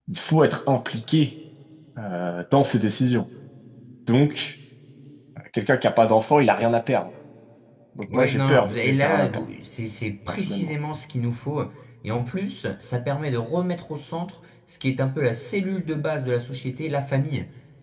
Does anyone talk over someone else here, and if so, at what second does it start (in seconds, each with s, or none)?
8.1 s